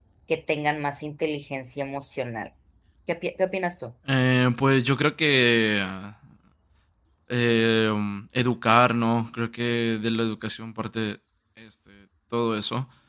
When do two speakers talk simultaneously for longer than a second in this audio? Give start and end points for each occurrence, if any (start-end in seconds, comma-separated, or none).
none